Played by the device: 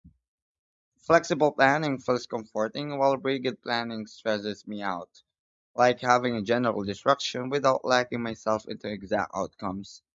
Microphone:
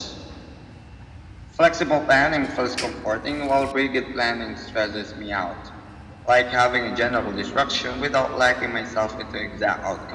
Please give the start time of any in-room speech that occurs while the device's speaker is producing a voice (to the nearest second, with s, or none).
none